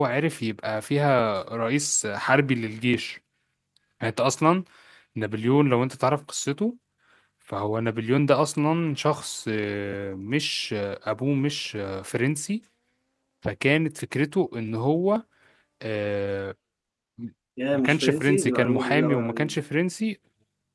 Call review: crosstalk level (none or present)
present